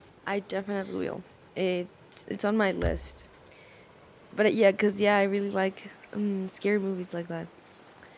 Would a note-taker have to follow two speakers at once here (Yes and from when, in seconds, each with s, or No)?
No